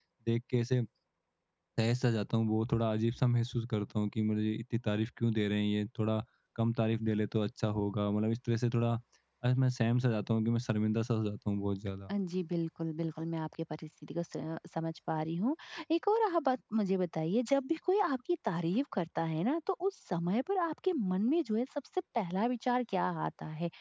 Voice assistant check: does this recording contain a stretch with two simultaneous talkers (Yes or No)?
No